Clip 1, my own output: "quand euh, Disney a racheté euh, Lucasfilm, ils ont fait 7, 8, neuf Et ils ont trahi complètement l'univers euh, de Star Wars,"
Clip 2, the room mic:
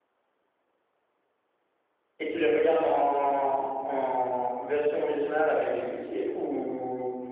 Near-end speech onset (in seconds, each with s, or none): 2.2 s